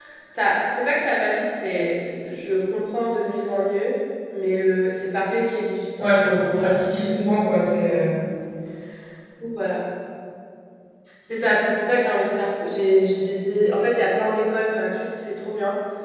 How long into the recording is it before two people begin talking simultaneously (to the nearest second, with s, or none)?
6 s